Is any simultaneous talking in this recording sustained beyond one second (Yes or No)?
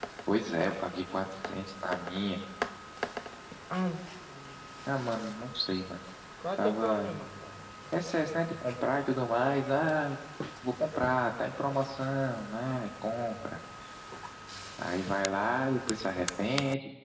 No